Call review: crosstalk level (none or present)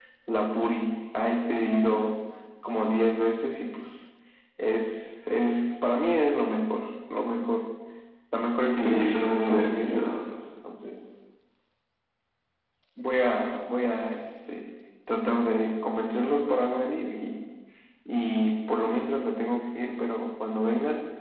present